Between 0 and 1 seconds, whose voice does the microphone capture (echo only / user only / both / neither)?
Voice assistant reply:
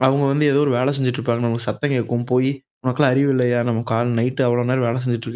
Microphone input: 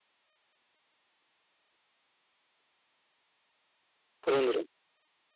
neither